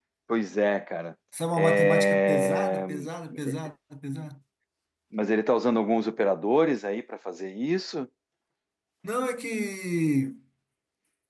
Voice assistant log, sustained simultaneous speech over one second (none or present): present